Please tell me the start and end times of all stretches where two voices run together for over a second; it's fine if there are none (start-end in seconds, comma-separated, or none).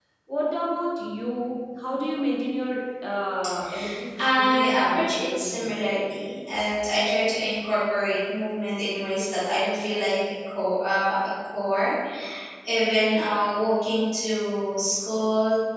4.2-5.8